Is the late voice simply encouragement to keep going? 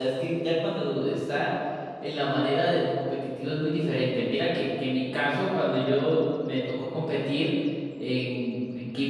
Yes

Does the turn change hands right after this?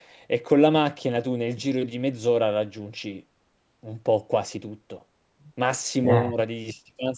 No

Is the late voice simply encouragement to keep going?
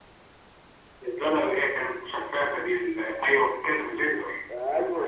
No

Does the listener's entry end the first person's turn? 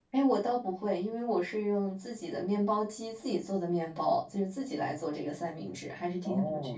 Yes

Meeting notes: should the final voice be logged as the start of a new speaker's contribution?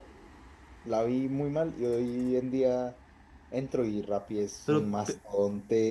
No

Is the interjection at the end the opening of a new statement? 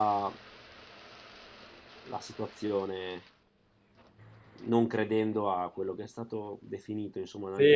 Yes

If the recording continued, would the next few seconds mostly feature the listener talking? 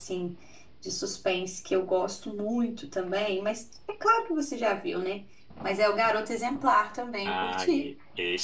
Yes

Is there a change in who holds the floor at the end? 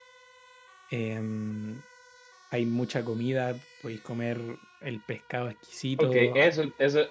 Yes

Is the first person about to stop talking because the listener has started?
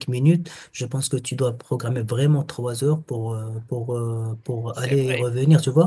No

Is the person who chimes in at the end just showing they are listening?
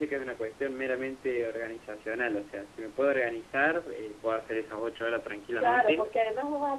No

